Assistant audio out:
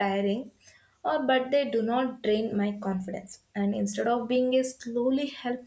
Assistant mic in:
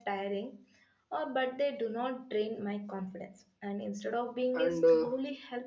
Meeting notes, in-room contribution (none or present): present